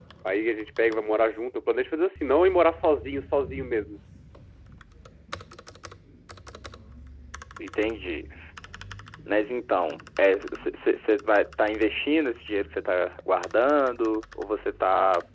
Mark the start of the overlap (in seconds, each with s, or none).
none